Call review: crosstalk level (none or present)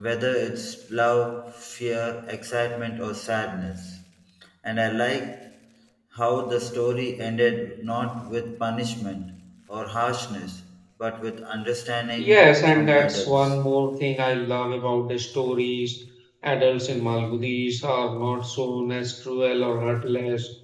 present